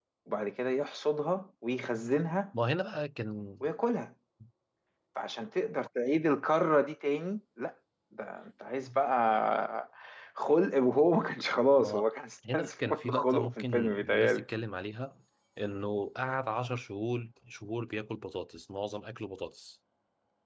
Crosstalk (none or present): present